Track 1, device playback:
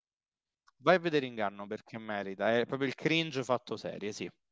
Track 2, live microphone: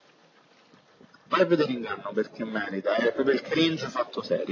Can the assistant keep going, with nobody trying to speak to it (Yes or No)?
Yes